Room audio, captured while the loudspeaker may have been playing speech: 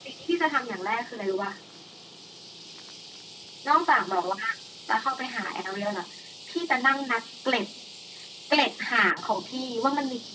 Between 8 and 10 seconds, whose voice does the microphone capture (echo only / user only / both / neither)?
echo only